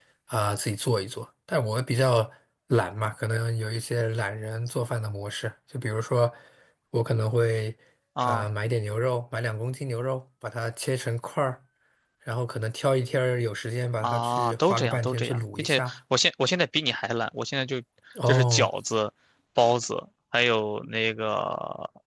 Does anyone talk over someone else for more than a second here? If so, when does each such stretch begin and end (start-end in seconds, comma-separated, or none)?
14.0-15.9